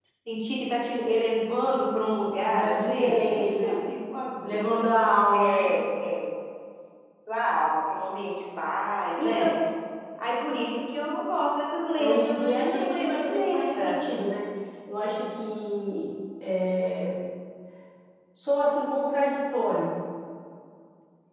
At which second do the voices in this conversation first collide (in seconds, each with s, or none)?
2.4 s